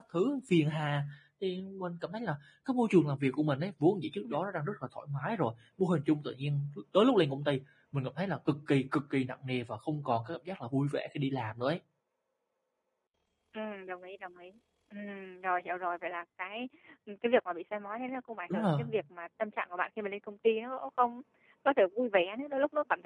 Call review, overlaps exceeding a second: none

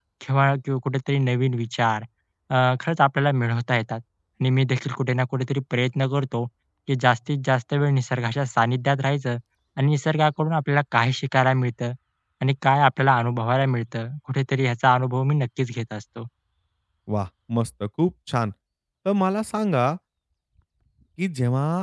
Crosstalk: none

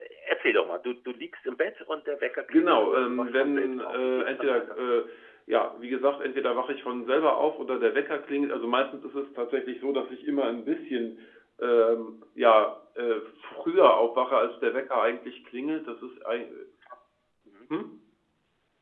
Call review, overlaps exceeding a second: present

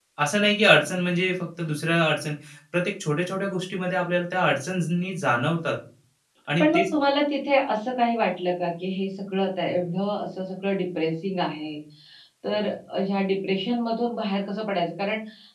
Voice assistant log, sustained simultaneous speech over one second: none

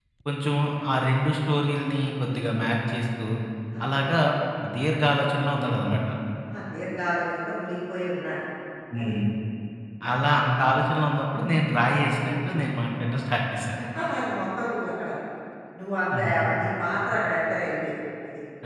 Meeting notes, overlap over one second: none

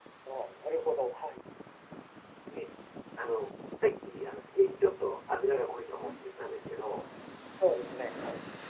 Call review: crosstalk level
none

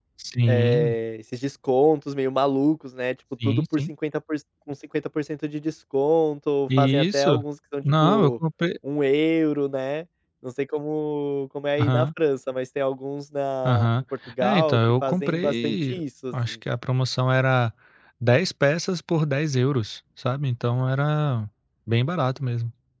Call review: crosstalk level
present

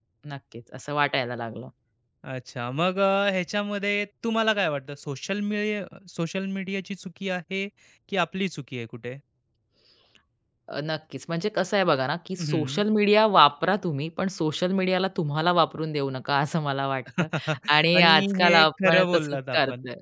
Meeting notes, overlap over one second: present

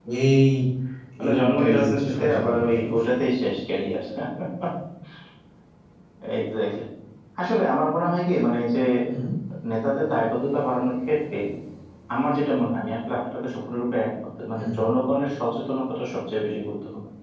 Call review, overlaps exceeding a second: present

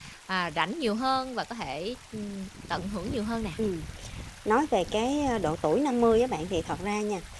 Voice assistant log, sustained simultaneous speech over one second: none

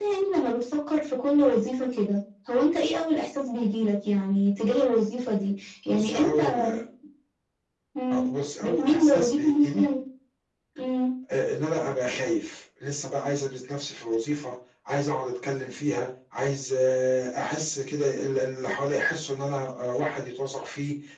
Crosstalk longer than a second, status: present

